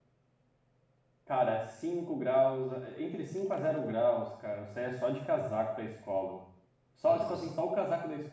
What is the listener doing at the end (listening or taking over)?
listening